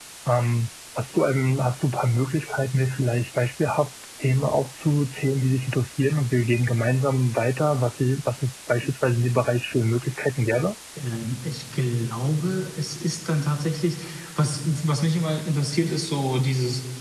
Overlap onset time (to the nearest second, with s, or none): none